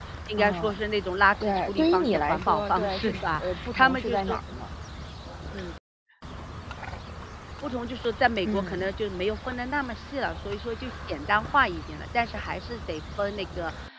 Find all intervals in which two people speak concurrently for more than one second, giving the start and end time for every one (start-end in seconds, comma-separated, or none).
1.4-4.4